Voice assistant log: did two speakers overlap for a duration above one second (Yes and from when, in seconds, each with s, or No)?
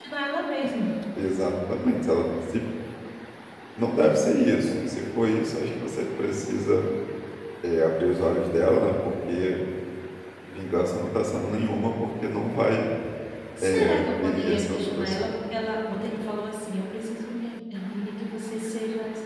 Yes, from 13.6 s